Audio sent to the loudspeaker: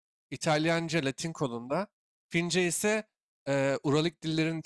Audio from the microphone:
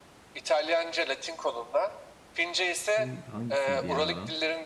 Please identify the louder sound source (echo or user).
echo